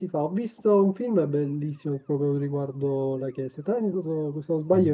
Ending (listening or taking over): listening